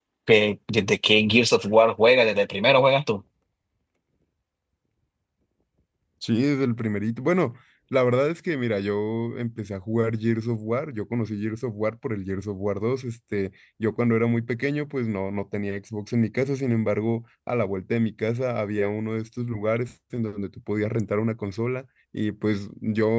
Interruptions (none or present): none